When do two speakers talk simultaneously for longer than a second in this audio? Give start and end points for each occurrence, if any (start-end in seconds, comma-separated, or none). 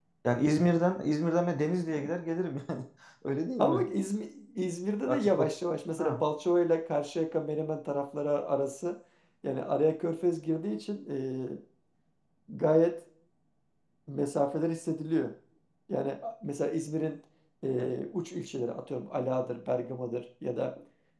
none